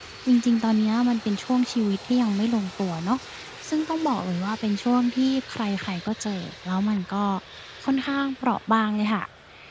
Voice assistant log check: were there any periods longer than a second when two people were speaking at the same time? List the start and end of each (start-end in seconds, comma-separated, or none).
none